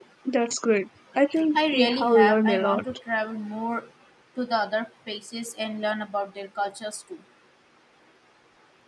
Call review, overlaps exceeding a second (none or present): present